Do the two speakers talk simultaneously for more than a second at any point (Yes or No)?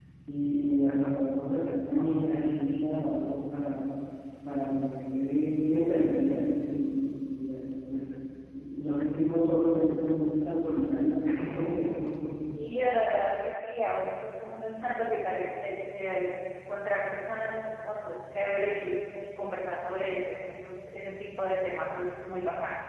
No